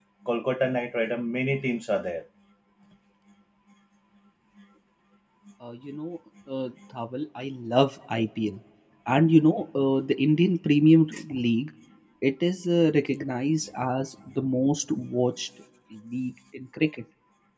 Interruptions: none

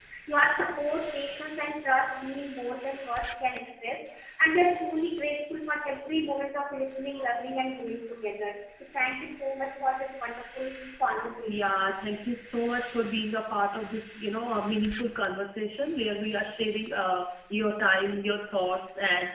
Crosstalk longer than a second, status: none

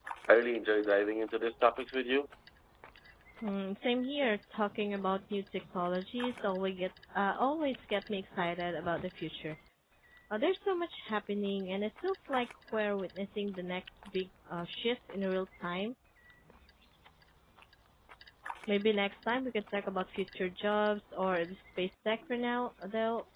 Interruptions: none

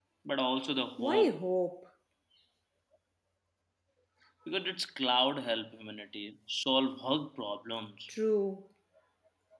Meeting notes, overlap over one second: none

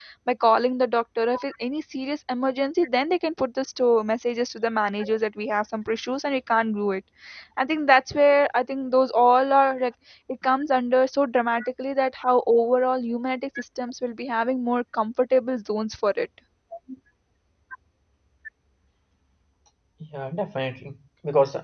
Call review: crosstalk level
none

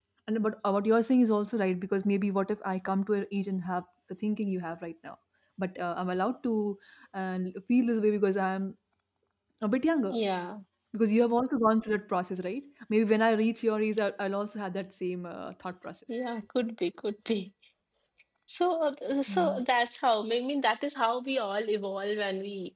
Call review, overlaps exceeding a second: none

